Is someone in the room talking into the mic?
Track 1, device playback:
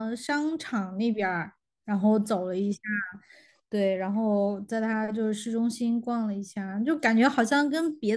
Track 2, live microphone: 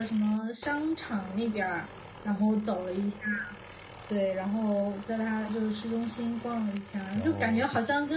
Yes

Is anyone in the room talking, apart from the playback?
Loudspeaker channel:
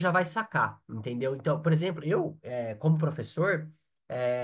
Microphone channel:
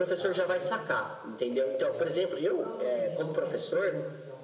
Yes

